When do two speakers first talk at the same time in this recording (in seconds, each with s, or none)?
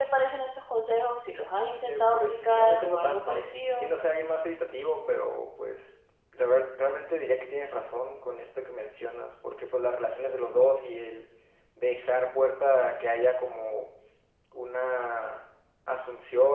1.8 s